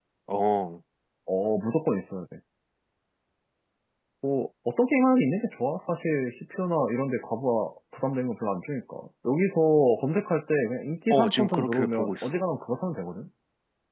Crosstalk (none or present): present